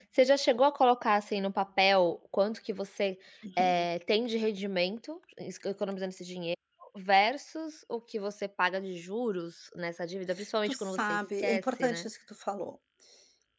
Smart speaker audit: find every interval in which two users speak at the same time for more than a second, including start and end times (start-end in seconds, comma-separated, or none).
10.6-12.1